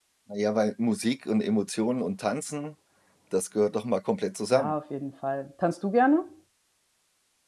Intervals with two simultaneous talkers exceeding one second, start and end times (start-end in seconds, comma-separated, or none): none